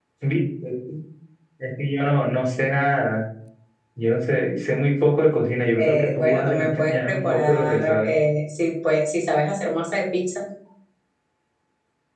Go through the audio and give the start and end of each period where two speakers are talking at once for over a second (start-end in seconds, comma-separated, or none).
5.8-8.1